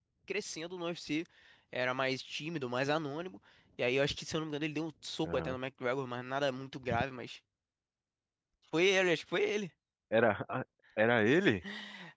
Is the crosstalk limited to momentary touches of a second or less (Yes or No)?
Yes